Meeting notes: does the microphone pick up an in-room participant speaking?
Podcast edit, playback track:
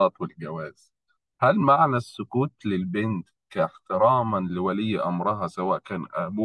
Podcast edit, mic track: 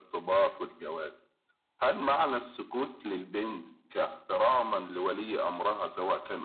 No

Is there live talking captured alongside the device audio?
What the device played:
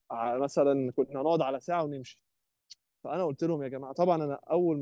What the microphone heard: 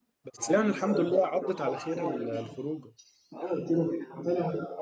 Yes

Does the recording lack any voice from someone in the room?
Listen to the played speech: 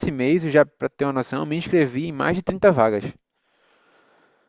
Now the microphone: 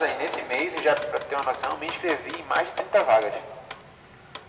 Yes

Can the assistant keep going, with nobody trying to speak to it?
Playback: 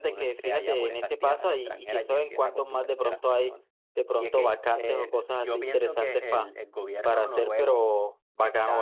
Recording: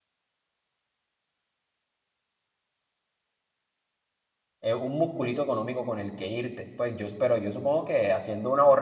No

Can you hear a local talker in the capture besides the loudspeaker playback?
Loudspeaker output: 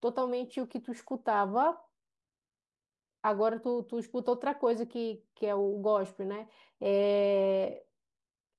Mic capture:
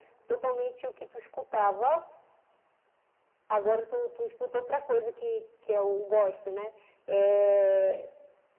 No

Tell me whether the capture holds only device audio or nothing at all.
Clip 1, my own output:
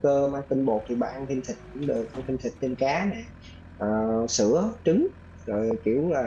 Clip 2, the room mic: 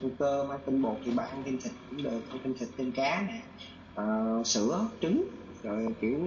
Yes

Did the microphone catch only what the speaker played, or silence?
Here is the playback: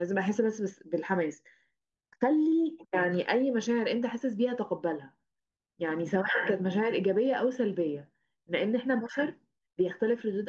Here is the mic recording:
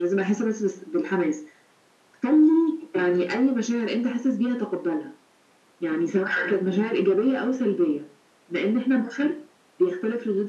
Yes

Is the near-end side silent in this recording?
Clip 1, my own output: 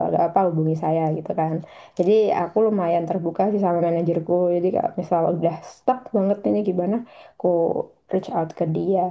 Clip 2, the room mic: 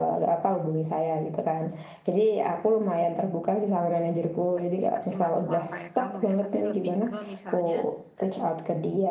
No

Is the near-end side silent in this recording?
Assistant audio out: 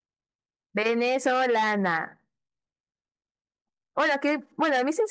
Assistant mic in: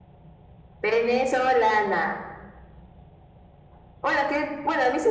Yes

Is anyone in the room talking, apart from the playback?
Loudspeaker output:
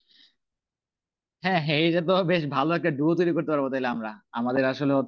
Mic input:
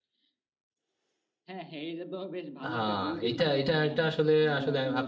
Yes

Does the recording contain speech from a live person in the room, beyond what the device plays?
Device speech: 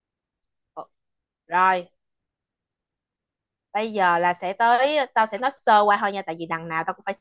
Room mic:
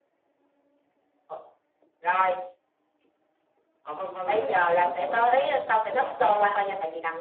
Yes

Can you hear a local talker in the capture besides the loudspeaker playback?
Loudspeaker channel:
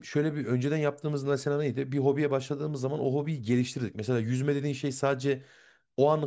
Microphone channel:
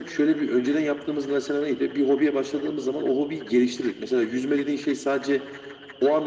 No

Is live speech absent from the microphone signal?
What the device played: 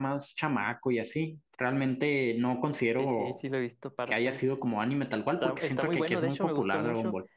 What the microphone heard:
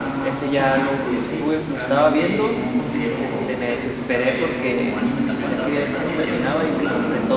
No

